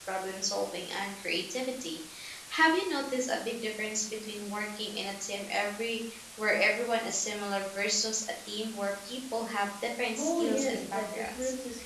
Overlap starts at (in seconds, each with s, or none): 10.2 s